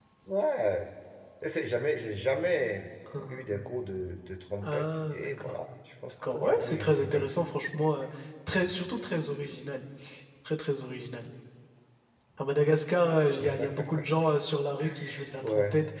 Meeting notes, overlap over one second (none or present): present